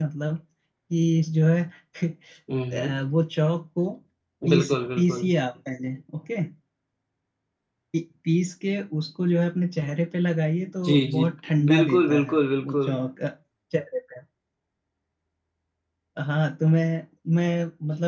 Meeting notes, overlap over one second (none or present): present